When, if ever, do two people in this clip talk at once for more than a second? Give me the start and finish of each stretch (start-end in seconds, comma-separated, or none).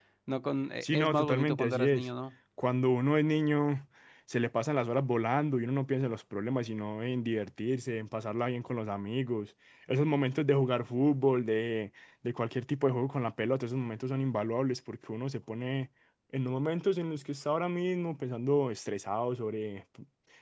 0.8-2.0